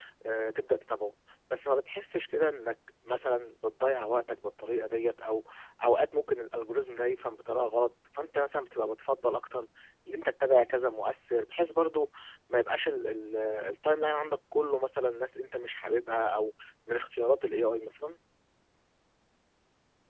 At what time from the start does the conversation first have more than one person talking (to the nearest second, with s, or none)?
none